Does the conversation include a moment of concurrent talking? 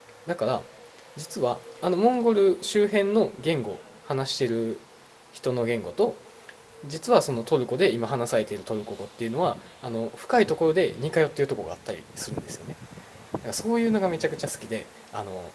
No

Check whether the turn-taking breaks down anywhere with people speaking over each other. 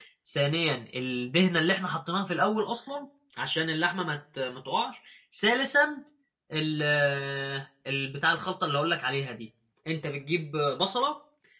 No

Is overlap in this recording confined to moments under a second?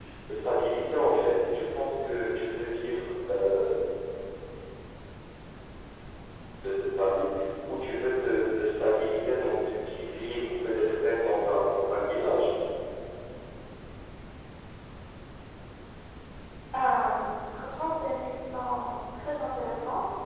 Yes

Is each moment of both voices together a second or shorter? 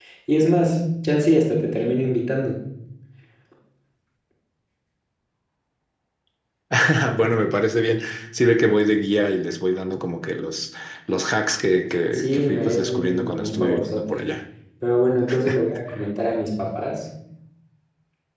No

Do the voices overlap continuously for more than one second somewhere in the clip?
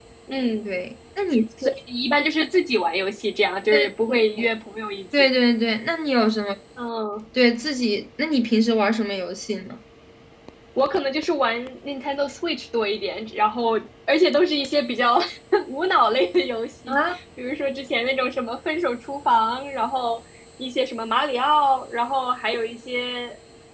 No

